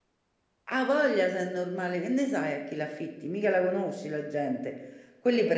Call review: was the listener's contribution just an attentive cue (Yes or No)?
Yes